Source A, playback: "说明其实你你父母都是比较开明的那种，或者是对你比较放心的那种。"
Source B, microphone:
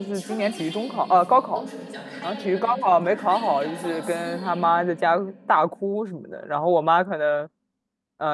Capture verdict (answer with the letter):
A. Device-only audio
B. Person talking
B